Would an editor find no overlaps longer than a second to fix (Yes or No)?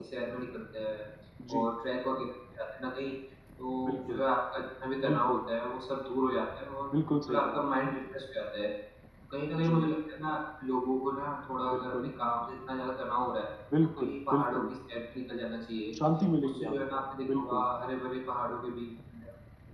No